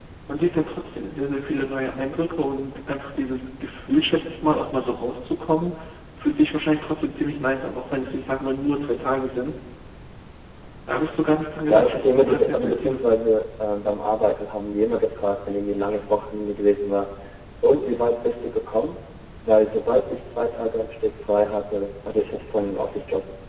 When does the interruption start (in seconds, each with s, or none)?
11.7 s